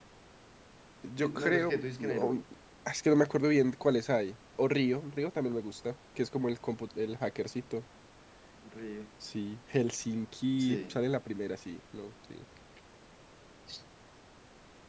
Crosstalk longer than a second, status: present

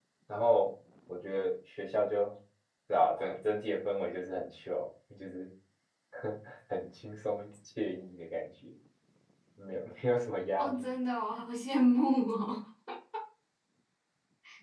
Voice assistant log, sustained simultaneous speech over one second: none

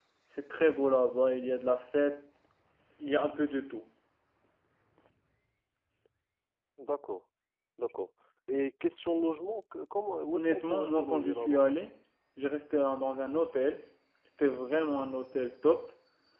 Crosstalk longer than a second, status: present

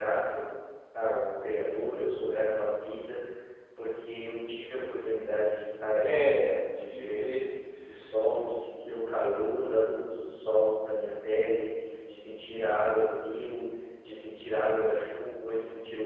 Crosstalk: present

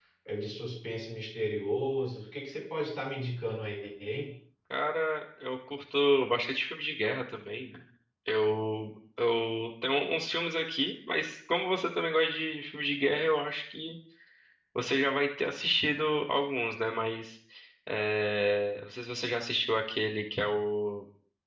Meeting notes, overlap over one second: none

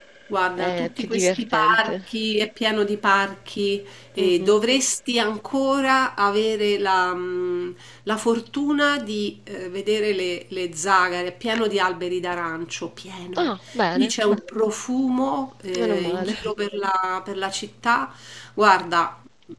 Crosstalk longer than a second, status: present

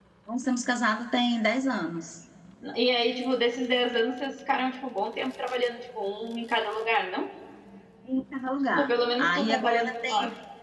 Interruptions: present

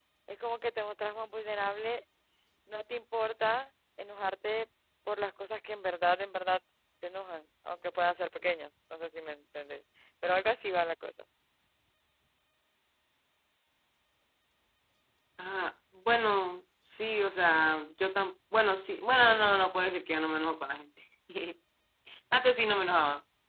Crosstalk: none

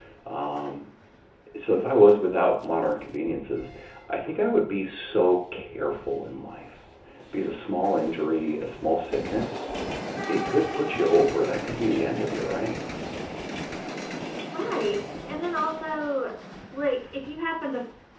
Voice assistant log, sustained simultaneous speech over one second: none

